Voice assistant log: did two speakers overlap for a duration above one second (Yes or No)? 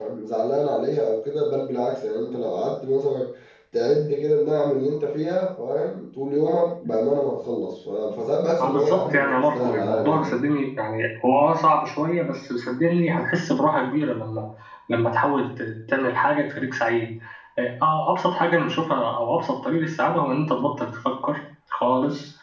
Yes